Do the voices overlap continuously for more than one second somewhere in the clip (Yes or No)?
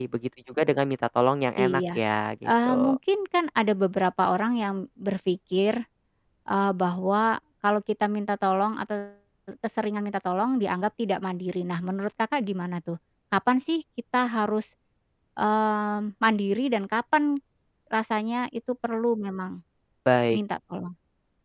No